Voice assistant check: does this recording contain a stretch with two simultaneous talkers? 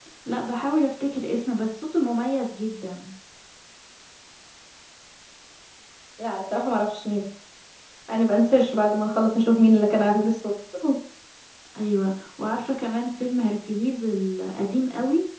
No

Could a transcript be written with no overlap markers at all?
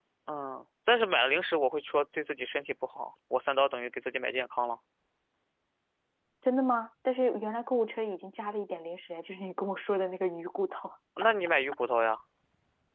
Yes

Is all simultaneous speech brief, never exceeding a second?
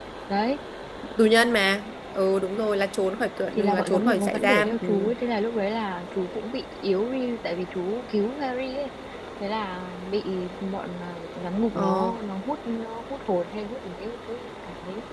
No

